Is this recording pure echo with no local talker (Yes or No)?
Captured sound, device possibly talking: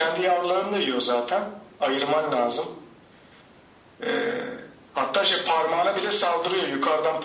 Yes